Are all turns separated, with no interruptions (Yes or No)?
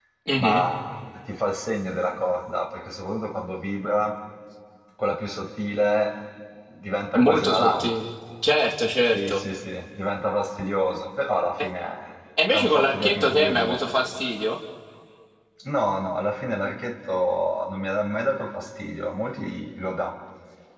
No